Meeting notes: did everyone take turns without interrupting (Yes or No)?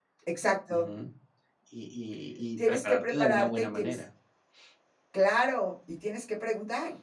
No